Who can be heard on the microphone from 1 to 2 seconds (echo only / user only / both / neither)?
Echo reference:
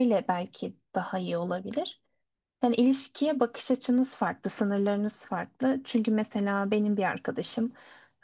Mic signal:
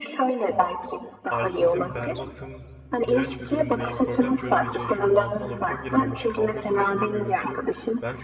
both